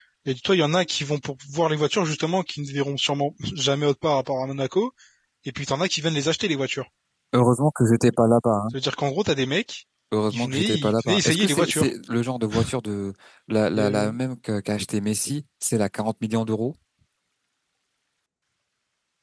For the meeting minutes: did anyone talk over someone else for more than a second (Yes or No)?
Yes